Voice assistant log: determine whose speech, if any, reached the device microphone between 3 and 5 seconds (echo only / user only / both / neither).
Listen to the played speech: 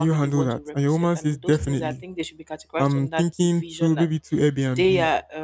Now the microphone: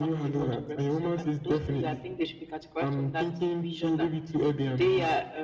echo only